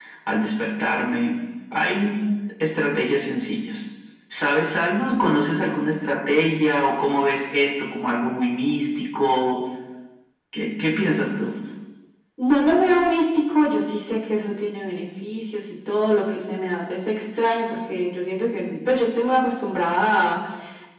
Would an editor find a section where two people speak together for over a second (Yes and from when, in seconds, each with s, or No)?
No